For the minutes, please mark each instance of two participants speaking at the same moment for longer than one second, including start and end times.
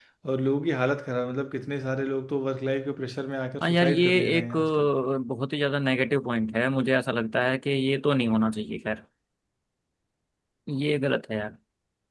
3.6-4.9

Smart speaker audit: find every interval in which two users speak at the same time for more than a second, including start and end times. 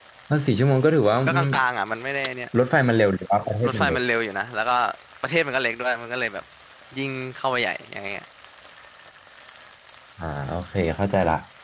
none

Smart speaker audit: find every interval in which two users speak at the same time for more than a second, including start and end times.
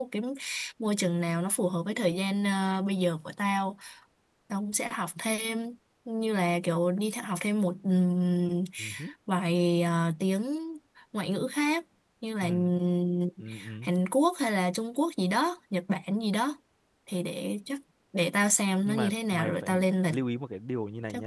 18.9-20.1

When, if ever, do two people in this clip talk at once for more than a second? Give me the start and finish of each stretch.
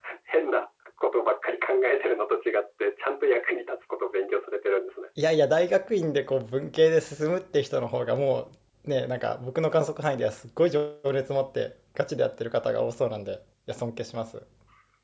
none

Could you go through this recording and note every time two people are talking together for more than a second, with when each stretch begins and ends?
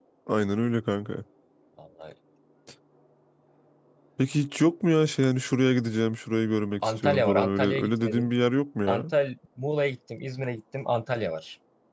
6.8-8.3

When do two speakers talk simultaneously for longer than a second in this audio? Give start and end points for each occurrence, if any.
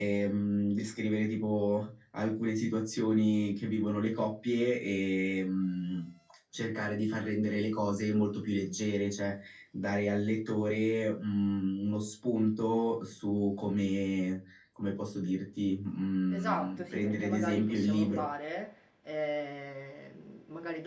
16.3-18.2

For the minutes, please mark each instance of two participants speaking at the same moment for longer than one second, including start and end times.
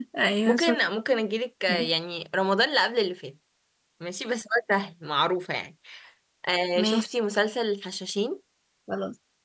none

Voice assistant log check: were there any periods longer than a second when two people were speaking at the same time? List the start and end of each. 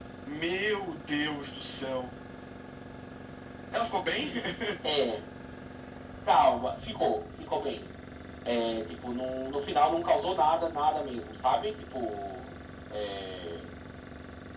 none

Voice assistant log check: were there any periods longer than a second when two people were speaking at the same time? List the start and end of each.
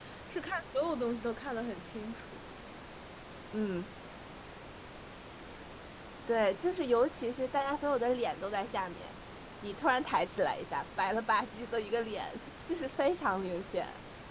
none

